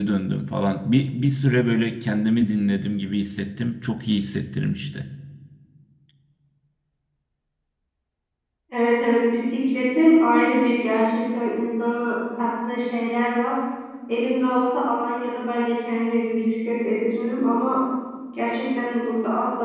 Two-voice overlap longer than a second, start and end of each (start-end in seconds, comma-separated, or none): none